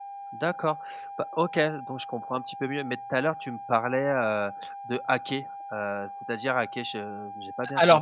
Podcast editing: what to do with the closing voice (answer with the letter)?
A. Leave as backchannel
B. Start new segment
B